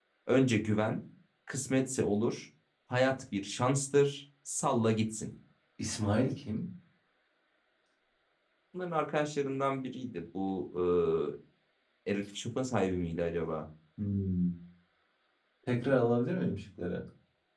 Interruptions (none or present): none